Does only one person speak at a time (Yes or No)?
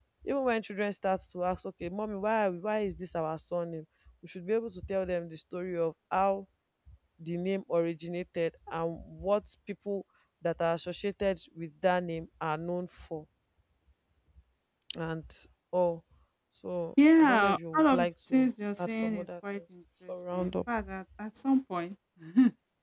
No